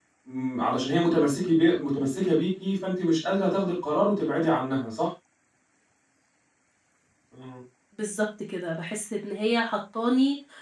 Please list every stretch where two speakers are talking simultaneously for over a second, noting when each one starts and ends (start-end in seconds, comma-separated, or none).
none